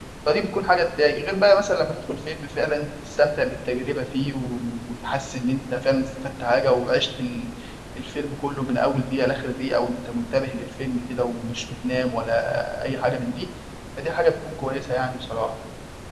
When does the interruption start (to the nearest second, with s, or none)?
none